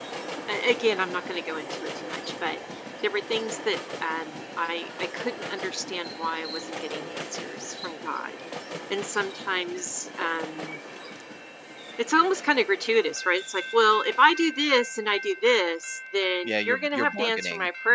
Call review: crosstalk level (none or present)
present